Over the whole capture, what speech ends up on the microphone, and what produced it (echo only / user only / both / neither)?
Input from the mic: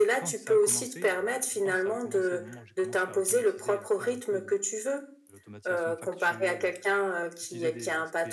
both